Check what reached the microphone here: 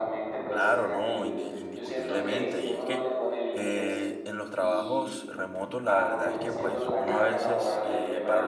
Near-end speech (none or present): present